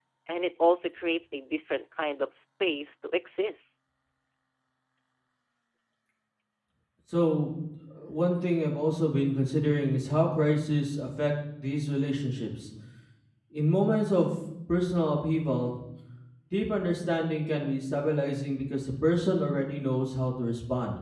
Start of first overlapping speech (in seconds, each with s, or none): none